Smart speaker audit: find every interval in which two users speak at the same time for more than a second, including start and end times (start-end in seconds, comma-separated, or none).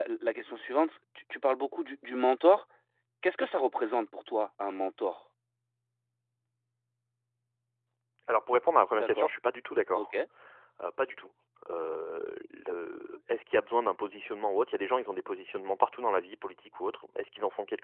none